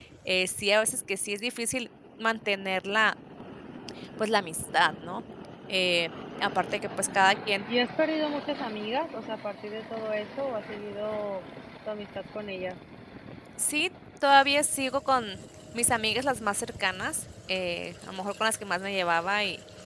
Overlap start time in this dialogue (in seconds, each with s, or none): none